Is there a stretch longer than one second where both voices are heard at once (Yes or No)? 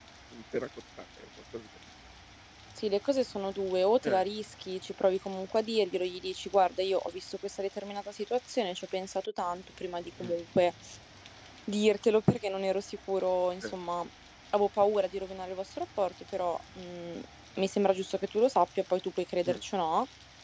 No